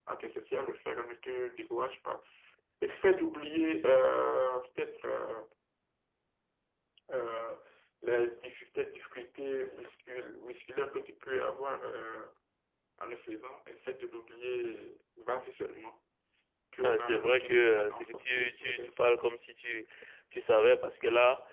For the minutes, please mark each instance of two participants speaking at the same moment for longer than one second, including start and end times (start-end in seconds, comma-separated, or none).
16.8-19.1